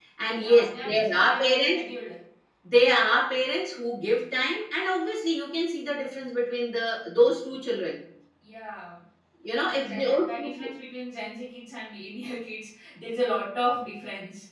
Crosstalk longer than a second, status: present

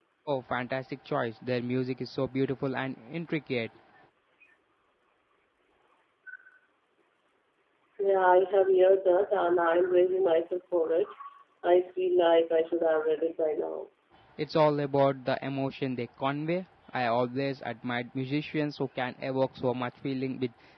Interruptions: none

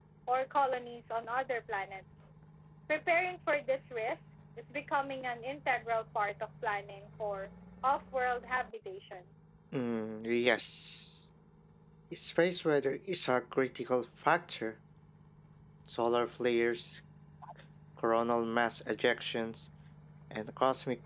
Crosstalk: none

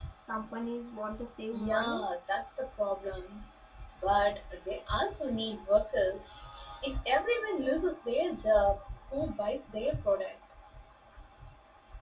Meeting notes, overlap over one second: none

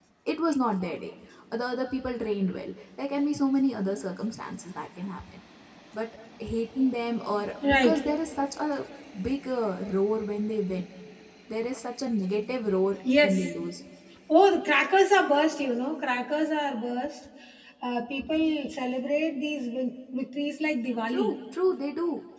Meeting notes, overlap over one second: none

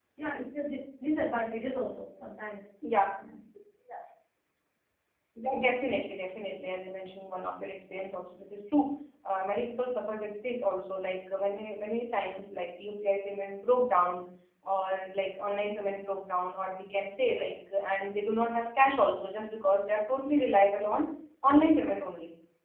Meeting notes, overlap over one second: none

